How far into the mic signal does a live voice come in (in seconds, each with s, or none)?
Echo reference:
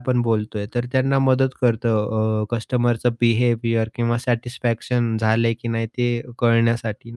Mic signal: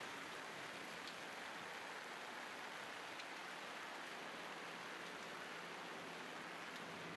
none